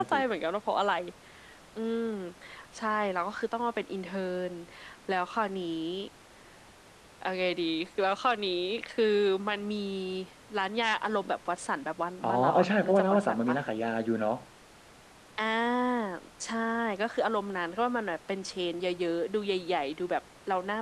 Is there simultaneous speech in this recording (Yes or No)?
Yes